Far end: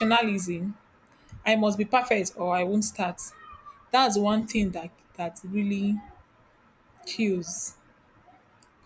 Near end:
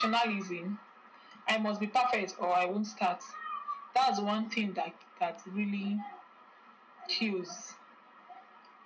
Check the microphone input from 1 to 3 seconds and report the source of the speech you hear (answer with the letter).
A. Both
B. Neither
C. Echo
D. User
C